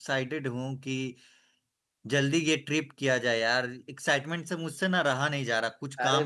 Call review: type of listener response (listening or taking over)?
taking over